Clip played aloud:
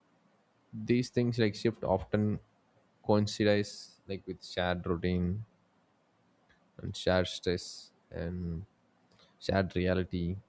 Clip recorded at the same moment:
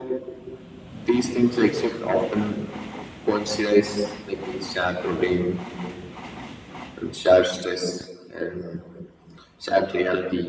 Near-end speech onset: none

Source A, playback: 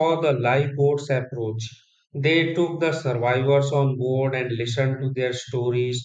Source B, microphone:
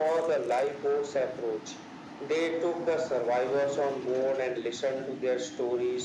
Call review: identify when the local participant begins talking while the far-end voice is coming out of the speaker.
none

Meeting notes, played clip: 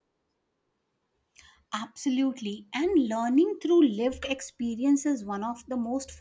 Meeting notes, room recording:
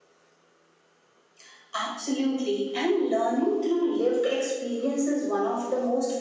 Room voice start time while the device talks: none

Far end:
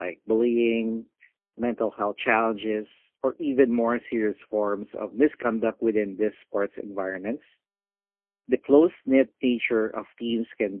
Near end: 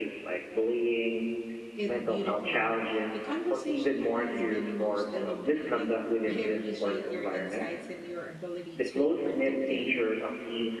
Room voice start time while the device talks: 1.8 s

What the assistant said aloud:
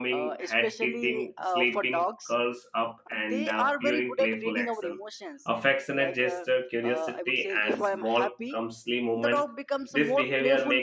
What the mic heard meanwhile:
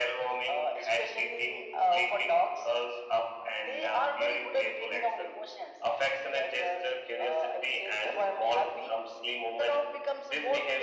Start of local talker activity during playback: none

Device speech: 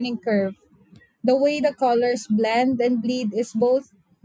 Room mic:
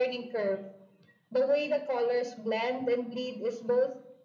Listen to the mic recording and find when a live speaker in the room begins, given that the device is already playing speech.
none

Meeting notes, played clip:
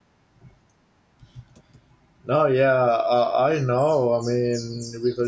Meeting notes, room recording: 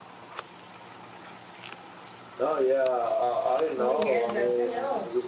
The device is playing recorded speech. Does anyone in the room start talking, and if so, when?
3.7 s

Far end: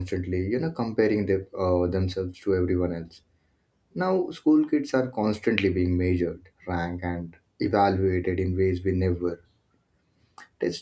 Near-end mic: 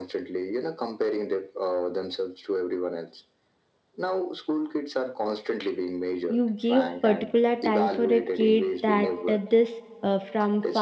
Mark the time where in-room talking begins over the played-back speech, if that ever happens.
6.3 s

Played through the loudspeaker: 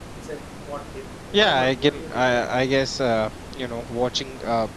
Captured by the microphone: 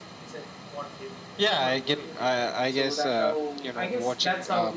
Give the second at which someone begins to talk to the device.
2.7 s

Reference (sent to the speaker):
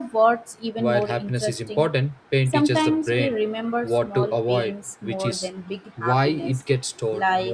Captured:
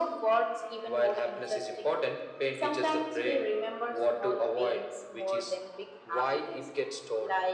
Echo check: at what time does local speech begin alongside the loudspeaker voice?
none

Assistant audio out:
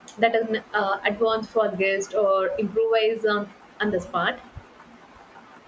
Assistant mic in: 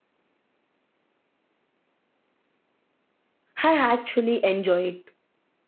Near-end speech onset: 3.6 s

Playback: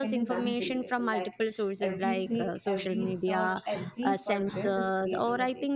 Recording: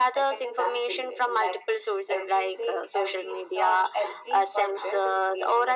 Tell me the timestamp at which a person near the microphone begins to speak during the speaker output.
none

